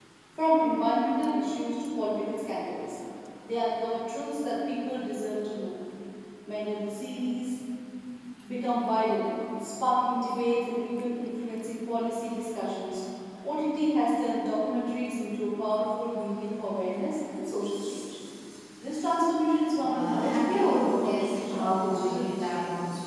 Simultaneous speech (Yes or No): Yes